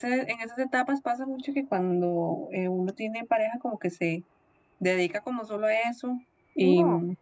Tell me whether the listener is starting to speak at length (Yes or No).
No